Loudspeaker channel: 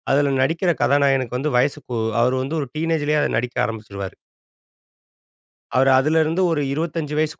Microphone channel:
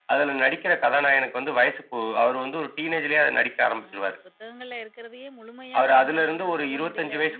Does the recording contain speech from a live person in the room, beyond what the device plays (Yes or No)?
Yes